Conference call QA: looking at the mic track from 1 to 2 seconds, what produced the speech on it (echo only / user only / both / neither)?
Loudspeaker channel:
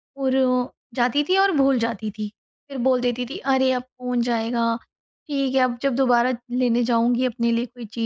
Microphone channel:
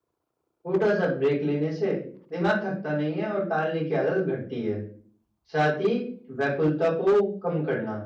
user only